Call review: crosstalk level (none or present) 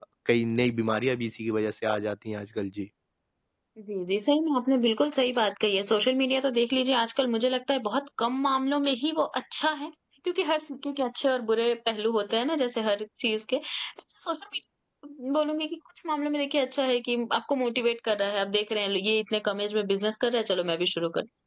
none